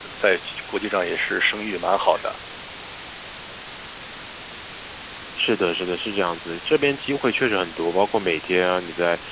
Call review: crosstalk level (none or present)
none